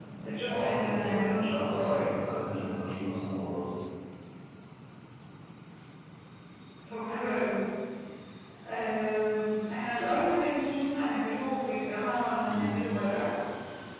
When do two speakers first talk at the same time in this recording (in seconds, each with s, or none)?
0.5 s